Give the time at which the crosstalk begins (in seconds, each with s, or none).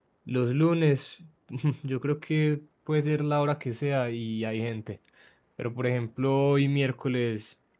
none